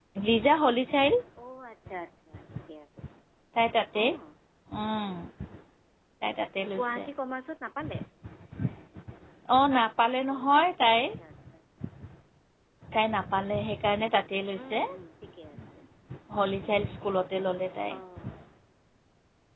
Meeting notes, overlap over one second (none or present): none